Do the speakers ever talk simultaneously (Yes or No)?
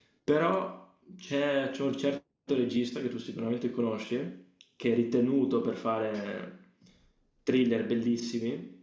No